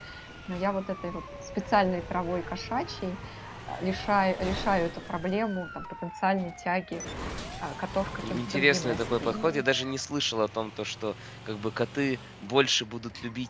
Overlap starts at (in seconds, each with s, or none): 8.2 s